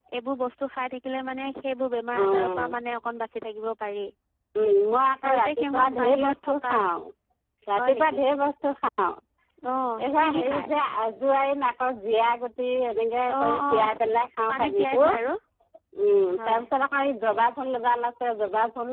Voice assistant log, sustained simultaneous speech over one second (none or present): present